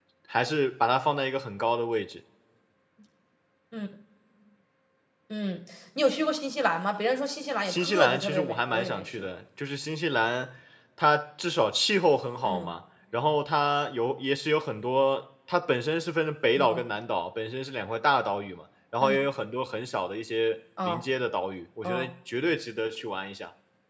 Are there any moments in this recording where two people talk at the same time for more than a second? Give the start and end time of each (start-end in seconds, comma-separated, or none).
7.6-9.2